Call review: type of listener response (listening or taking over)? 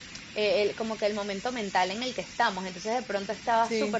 listening